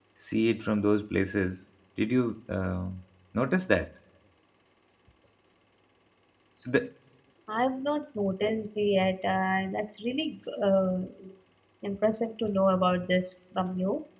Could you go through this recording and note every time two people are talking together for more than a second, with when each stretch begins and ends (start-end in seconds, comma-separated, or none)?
none